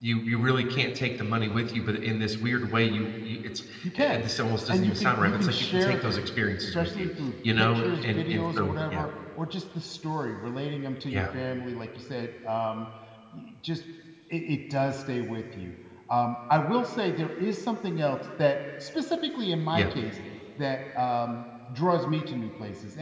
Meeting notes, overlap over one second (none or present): present